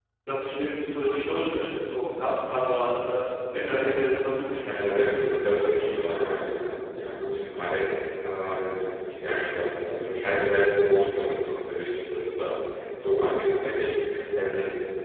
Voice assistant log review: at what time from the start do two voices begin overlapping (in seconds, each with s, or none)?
4.6 s